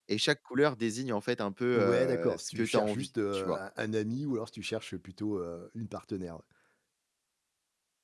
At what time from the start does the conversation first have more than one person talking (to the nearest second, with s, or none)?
2 s